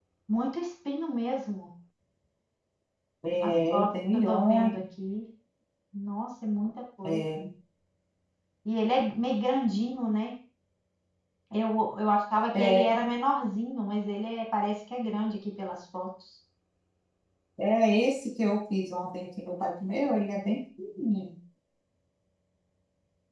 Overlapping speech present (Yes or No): Yes